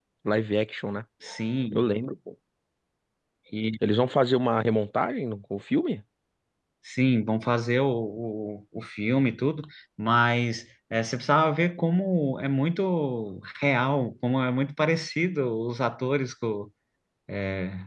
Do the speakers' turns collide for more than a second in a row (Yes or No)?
No